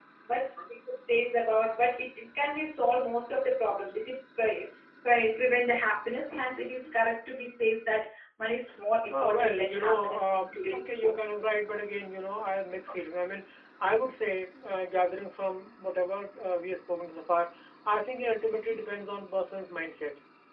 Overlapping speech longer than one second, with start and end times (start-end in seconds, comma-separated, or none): 9.1-11.2